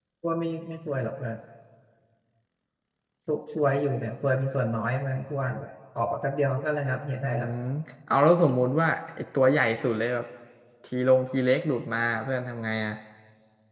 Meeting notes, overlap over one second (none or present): none